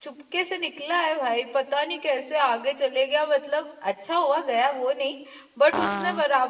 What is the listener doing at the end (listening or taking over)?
listening